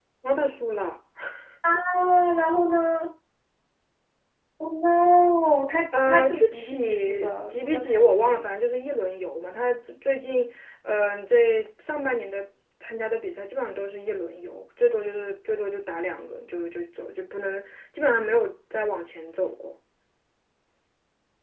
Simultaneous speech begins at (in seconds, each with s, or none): 5.9 s